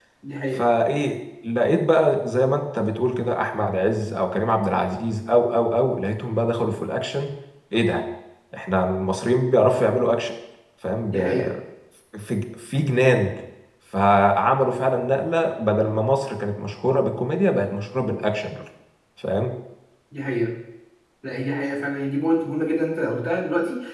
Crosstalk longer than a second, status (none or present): none